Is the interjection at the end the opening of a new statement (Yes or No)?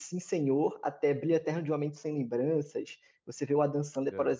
No